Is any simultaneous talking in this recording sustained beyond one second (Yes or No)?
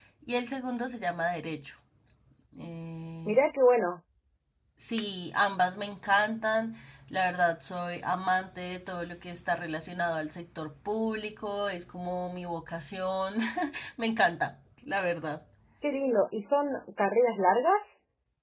No